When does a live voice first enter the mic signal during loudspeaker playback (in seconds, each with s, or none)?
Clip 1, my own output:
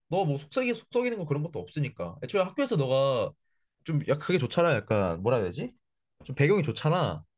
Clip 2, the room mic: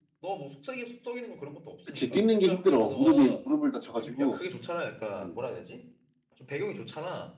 1.8 s